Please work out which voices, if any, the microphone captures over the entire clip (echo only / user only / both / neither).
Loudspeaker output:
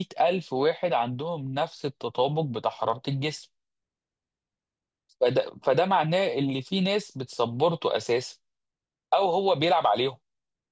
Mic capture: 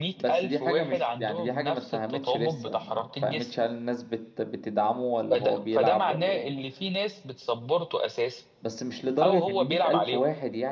both